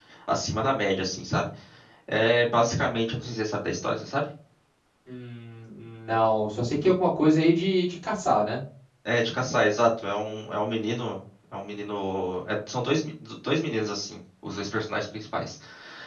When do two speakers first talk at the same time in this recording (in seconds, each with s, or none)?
none